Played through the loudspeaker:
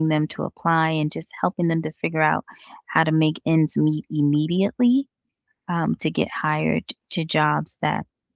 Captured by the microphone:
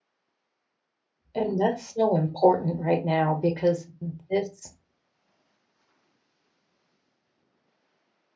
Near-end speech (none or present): present